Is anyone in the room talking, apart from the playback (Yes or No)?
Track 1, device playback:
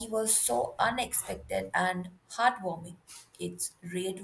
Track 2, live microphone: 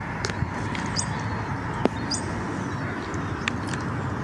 No